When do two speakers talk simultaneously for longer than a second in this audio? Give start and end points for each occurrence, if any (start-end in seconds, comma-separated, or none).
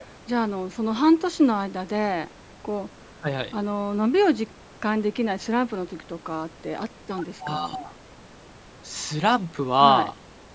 none